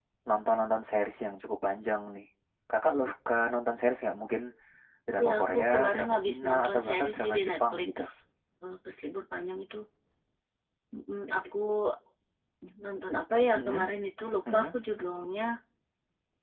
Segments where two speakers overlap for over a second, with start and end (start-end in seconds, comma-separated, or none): 5.2-7.9